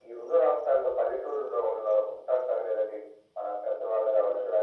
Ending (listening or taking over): listening